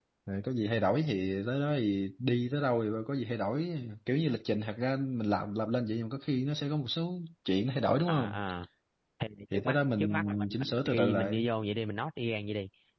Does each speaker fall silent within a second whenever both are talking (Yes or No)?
No